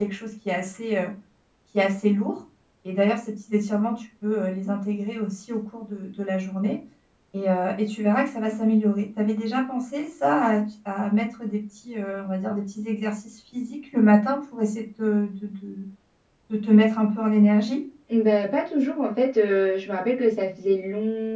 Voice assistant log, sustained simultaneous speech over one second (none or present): none